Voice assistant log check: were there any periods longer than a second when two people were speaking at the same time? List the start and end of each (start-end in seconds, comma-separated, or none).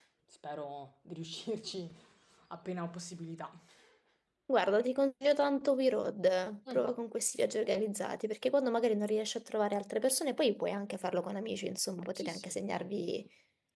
none